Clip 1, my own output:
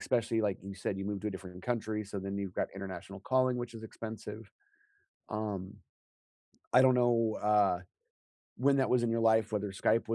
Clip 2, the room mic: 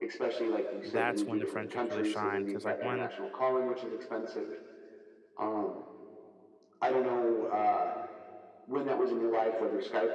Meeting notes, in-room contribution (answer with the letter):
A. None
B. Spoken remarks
B